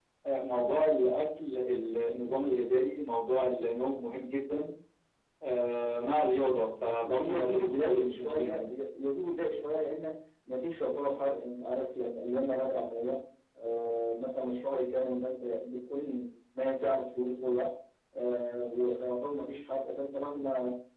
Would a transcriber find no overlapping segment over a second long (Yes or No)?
No